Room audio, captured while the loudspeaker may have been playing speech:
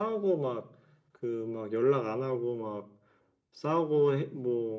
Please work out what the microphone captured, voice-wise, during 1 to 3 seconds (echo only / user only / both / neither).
echo only